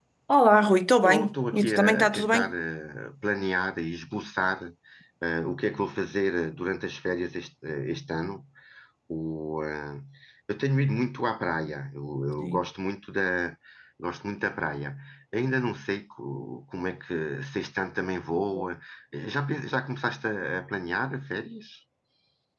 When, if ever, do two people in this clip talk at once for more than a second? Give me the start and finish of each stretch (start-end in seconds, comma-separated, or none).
1.0-2.5